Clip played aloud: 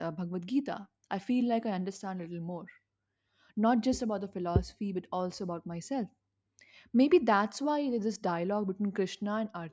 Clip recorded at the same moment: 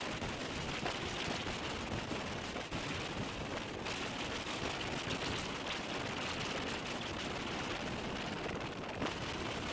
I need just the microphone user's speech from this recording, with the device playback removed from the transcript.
none

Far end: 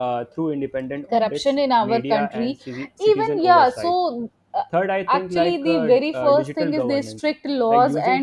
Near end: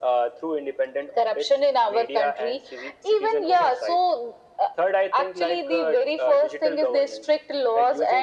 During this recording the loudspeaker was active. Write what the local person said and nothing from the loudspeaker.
none

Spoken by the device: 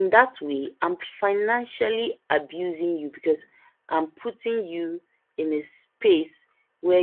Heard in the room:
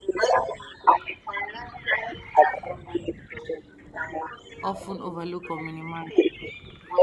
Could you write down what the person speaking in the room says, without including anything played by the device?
Often overlooked or minimized.

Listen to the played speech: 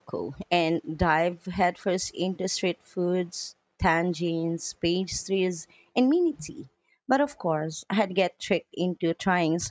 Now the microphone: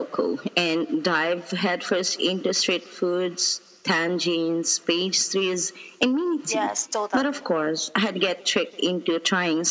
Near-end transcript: Yes, totally.

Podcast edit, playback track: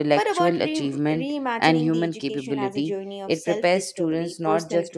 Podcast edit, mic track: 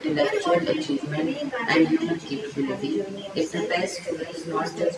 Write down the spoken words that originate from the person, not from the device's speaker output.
none

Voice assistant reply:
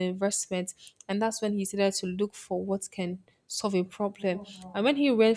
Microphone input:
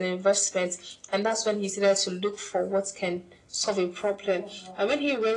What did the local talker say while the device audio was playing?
none

